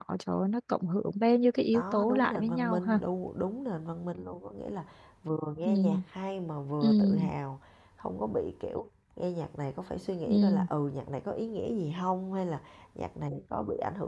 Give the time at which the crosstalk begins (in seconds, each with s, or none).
1.7 s